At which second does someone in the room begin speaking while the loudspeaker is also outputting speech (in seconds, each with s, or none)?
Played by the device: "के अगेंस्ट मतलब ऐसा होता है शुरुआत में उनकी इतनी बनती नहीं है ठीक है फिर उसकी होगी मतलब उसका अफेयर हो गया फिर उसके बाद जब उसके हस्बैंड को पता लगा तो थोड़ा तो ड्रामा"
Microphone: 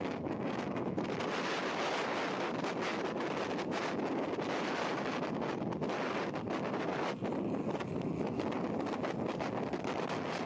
none